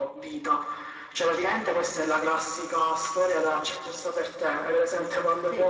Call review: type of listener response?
listening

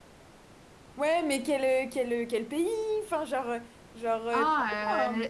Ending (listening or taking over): taking over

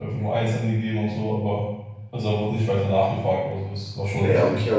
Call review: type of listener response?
taking over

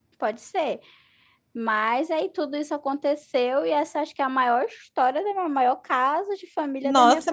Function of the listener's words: taking over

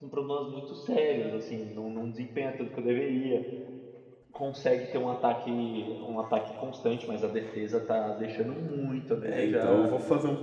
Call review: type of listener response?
taking over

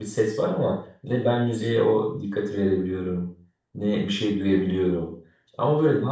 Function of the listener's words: listening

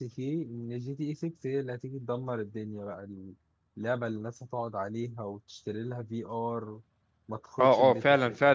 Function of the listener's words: taking over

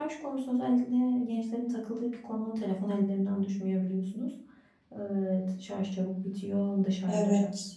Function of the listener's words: listening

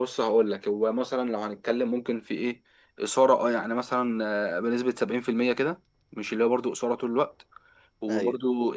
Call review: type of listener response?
listening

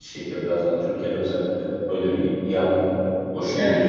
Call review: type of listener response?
taking over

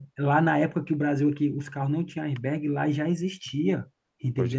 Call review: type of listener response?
listening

